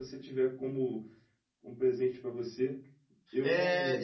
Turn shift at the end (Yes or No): Yes